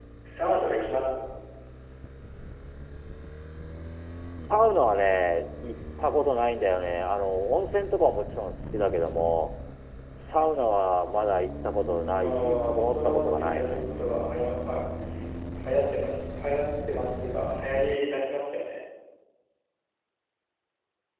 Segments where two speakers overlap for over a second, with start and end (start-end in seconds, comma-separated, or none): 12.2-13.9